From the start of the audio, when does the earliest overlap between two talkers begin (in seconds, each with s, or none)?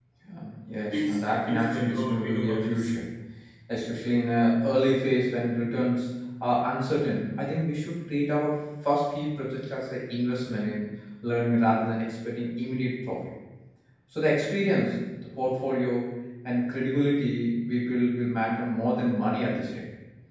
0.9 s